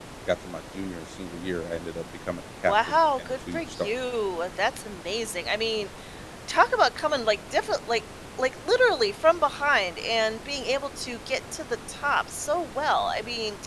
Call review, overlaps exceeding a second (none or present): present